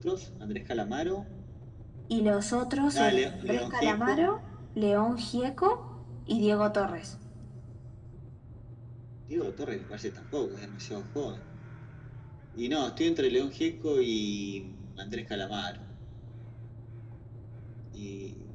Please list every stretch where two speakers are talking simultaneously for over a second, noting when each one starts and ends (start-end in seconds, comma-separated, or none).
2.9-4.3